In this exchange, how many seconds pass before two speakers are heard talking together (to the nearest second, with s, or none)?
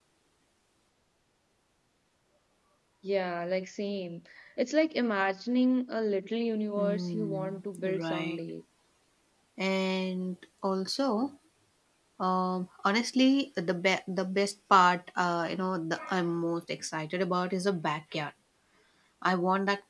7 s